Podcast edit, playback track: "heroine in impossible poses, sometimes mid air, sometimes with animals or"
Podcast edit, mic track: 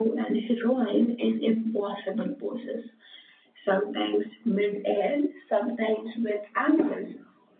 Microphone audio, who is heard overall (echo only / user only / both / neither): echo only